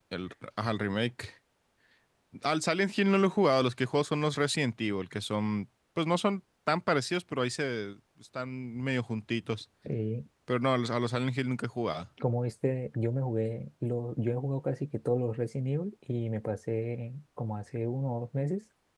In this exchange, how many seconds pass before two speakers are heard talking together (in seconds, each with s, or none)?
none